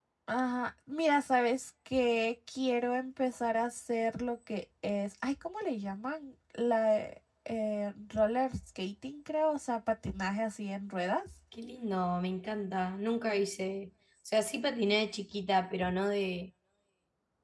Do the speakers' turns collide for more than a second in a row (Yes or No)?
No